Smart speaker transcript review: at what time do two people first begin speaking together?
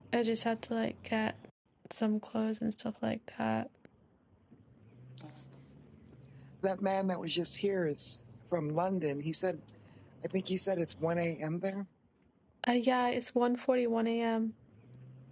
none

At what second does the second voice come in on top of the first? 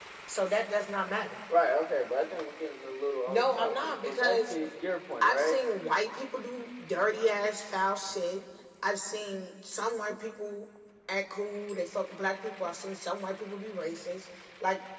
3.3 s

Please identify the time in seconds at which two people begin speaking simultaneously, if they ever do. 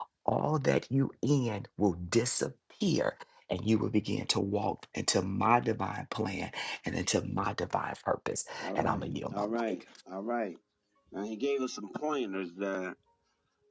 8.6 s

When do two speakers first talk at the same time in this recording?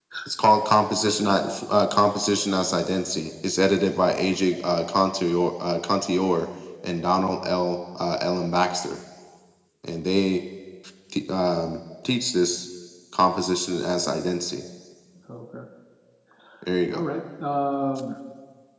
none

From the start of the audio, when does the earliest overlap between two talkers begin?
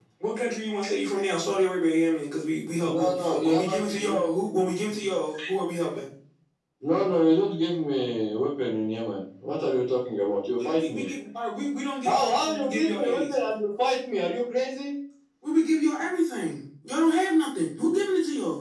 2.8 s

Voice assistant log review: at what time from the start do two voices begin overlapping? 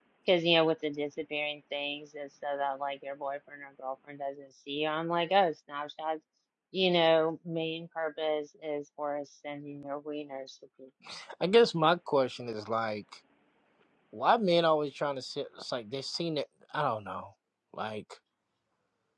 none

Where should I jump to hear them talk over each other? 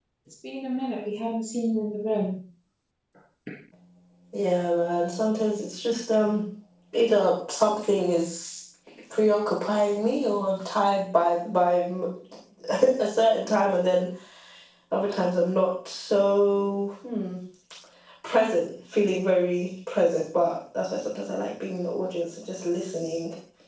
none

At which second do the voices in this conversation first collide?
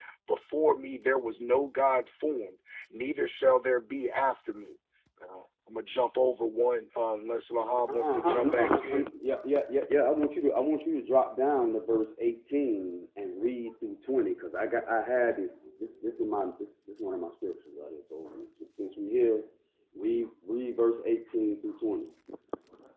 7.8 s

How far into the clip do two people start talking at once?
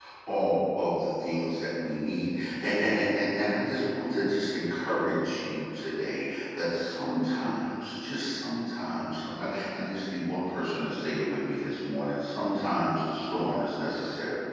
none

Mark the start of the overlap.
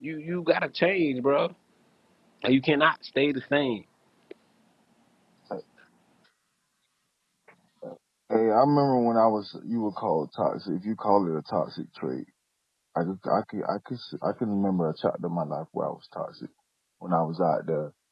none

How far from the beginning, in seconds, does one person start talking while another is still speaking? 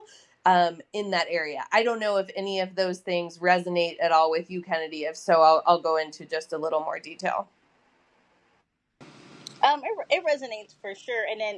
none

